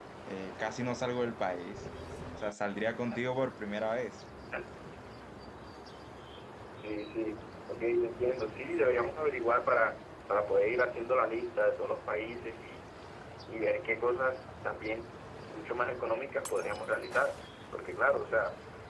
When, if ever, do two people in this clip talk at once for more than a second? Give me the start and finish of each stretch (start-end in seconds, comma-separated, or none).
none